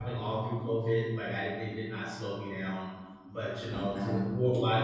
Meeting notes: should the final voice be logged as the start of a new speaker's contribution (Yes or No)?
No